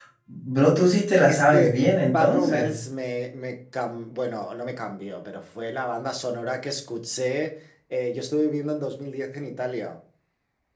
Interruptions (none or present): present